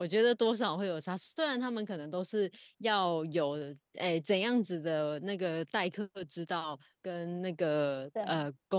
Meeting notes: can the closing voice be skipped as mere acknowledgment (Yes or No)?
Yes